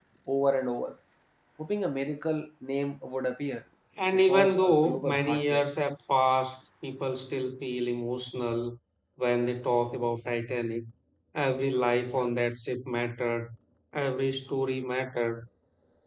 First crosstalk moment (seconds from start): 4.3 s

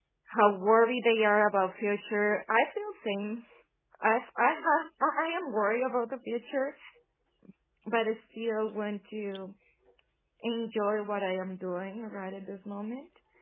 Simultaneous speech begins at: none

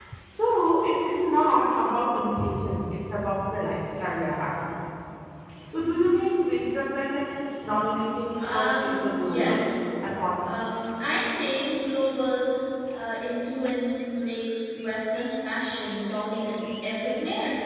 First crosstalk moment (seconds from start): 8.4 s

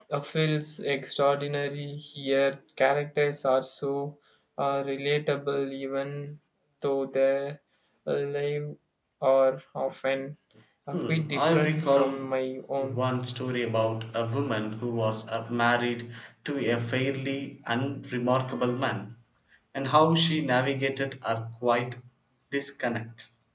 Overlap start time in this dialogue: 10.9 s

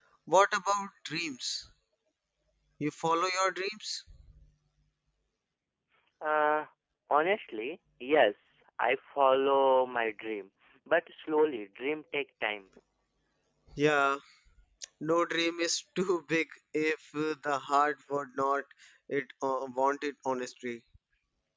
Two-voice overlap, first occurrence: none

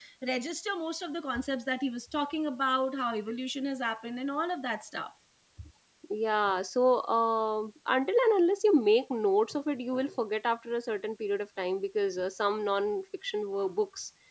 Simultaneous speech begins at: none

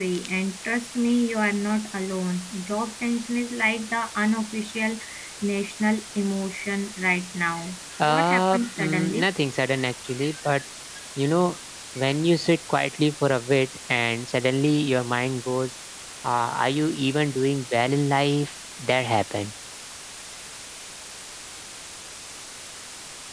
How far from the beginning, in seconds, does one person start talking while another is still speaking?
8.0 s

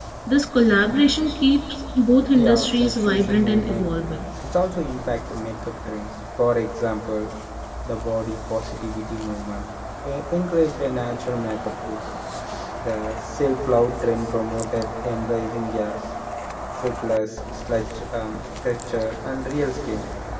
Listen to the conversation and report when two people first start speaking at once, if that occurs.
2.4 s

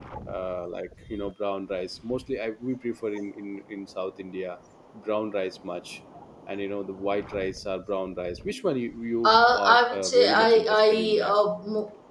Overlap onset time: 9.2 s

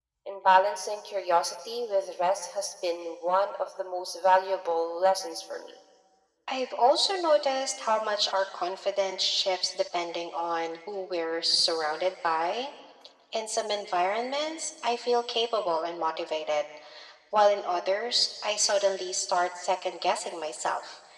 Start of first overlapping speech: none

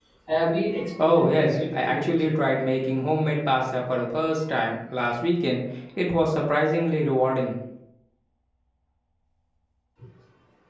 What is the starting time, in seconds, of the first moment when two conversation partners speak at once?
1.0 s

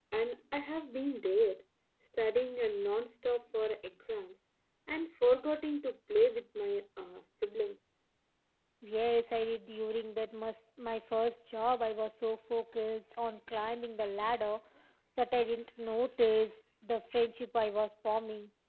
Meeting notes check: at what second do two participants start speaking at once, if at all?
none

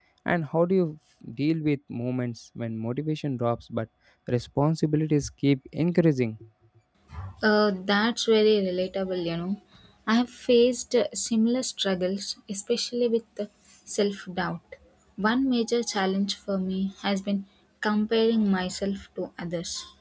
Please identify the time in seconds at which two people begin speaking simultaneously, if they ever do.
none

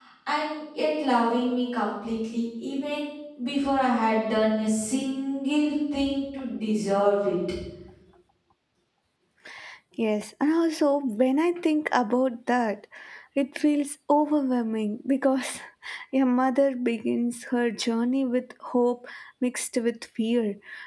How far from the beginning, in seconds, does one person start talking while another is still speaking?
none

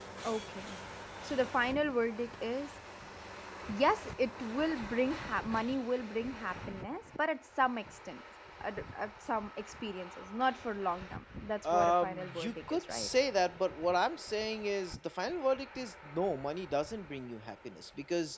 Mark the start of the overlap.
11.6 s

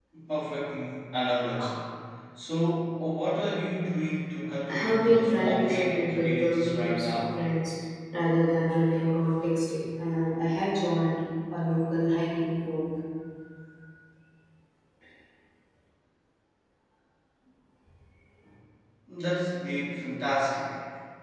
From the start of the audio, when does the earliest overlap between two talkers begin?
4.7 s

